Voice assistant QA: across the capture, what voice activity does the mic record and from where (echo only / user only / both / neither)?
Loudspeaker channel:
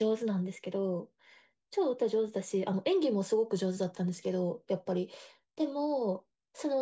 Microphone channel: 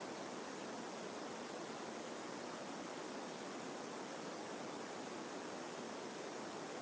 neither